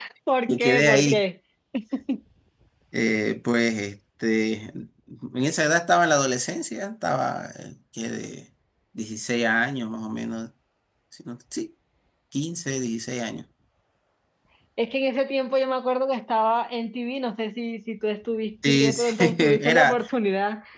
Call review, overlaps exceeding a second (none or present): present